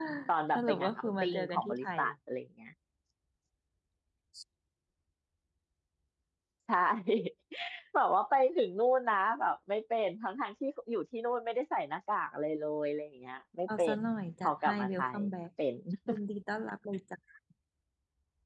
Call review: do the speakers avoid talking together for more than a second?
No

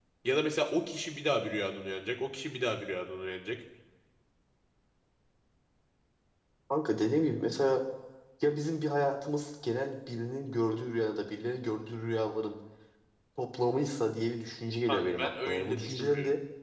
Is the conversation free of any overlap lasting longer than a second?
No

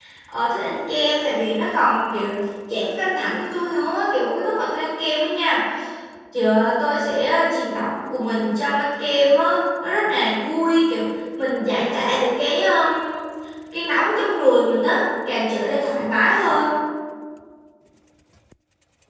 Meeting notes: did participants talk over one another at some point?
No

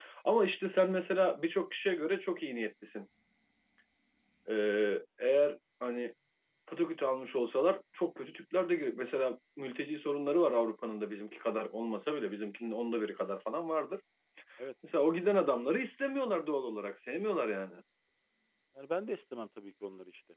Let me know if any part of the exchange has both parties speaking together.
No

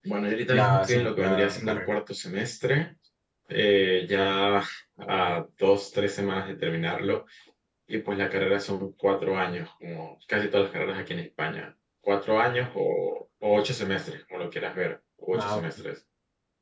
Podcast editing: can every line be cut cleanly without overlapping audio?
No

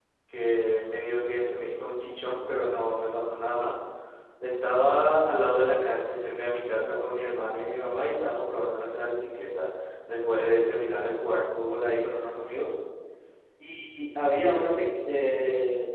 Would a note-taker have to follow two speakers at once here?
No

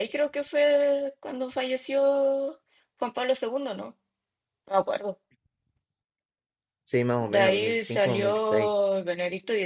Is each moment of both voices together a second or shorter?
No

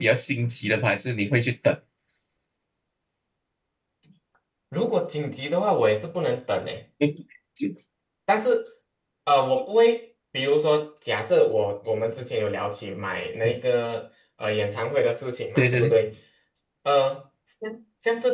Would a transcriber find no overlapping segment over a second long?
Yes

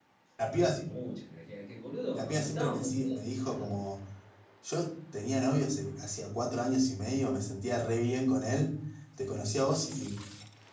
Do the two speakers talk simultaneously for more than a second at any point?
Yes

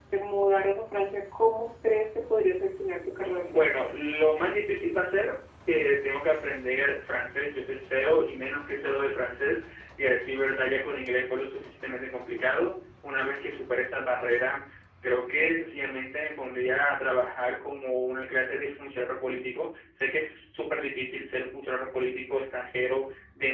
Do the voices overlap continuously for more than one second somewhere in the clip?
No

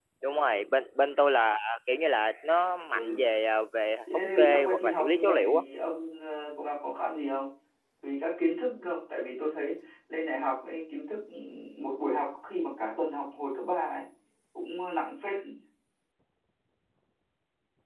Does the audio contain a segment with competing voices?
Yes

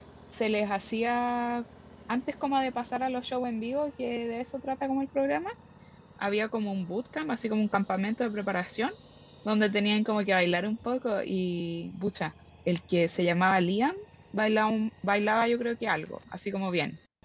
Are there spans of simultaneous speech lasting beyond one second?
No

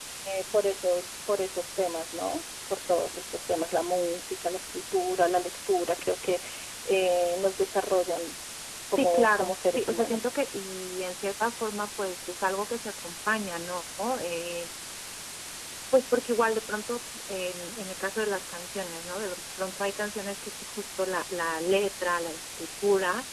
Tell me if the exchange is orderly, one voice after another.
No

